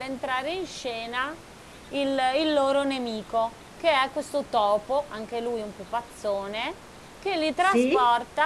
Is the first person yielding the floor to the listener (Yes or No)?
No